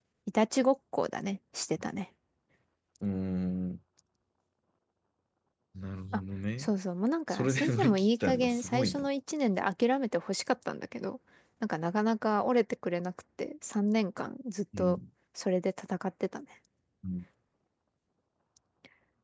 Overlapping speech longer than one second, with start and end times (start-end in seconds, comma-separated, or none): 7.3-9.0